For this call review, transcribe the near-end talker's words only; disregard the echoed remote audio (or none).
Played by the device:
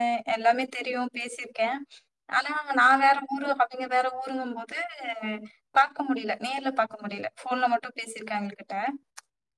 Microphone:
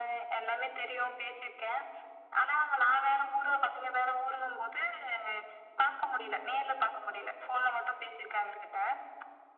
none